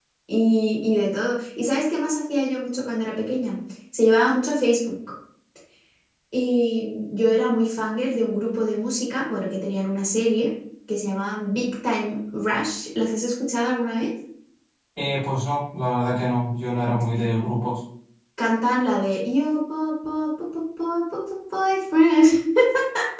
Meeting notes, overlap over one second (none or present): none